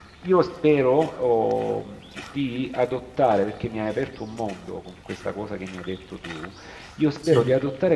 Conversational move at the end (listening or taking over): listening